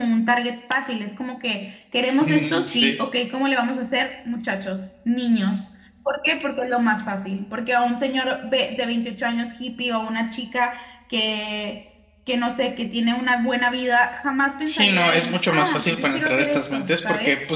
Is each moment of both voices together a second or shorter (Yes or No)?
No